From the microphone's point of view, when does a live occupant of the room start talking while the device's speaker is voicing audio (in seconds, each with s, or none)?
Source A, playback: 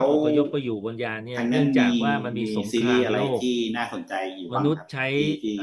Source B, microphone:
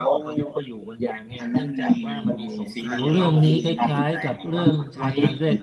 2.9 s